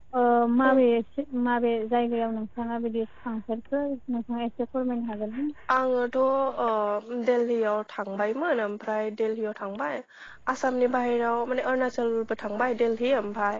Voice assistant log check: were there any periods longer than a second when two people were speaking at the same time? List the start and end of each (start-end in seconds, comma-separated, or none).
none